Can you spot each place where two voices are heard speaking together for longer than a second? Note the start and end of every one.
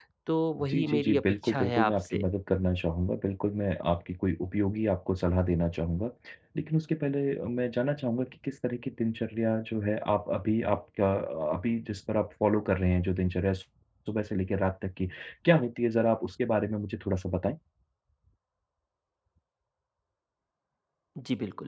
0.6-2.2

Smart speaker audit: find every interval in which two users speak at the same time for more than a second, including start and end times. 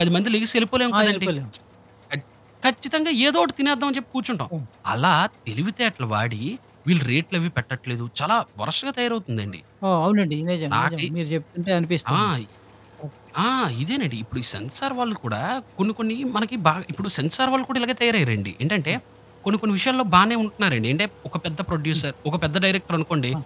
none

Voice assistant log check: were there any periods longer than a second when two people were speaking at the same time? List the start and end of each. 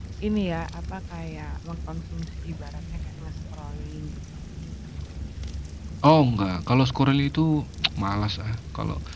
none

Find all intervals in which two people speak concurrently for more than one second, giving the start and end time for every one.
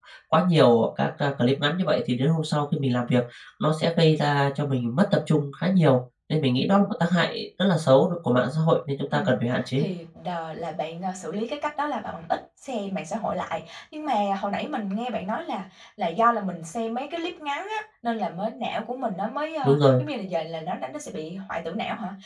none

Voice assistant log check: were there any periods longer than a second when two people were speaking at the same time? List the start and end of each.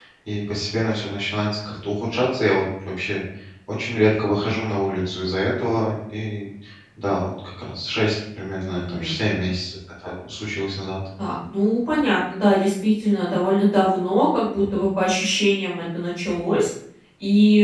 none

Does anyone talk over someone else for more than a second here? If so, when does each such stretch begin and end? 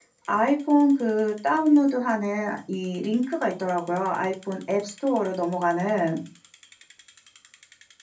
none

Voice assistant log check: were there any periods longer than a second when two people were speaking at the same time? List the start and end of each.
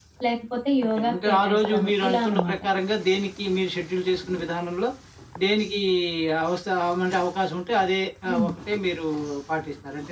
1.0-2.6

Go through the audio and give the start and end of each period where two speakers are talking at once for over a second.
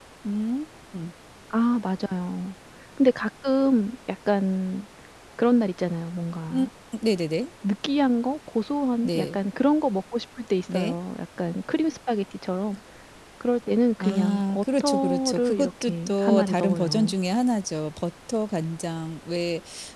14.0-17.1

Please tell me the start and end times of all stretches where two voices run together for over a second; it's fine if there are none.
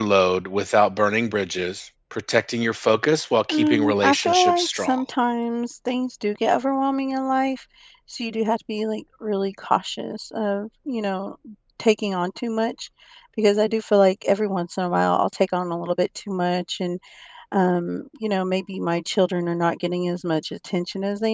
3.5-5.0

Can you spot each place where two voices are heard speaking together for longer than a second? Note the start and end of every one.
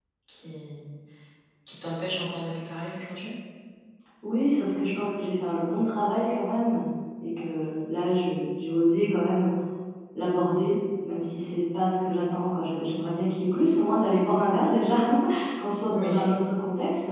none

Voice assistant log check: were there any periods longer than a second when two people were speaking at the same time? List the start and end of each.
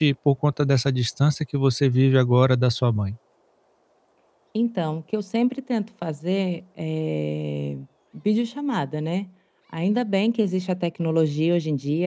none

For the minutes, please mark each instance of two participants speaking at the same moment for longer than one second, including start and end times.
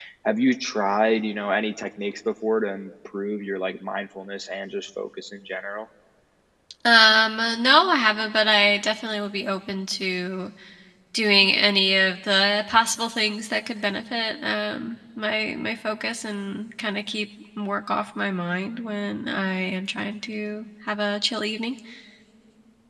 none

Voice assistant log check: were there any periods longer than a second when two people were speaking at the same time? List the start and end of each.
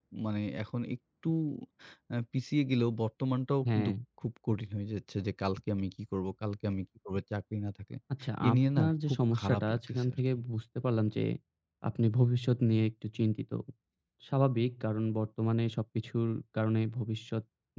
8.5-10.2

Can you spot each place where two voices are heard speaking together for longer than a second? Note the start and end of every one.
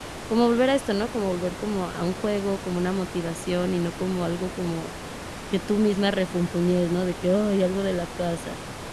none

